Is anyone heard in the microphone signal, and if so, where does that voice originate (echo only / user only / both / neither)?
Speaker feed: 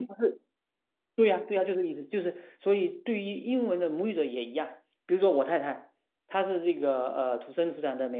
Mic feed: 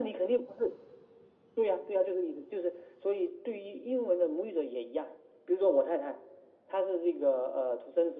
echo only